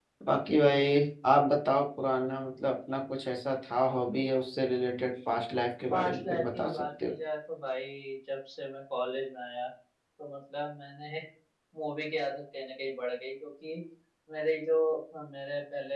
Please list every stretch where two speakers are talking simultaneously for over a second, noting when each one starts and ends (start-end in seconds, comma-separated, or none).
5.9-7.1